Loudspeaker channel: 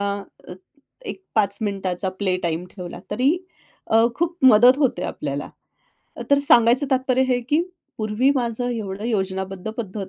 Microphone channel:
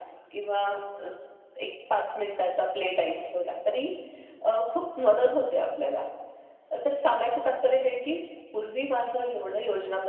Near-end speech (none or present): none